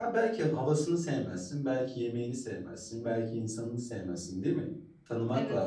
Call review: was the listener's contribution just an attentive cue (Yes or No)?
No